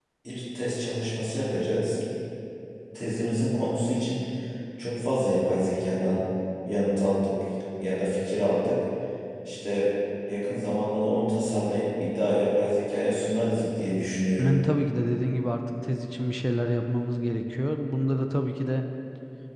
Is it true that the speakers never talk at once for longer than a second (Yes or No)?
Yes